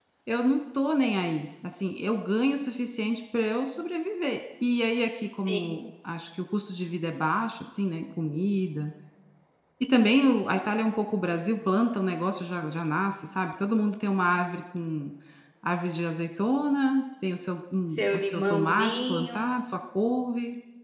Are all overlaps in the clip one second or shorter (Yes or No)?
No